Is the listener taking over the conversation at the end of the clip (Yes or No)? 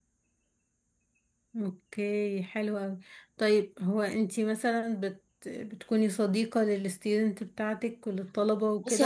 Yes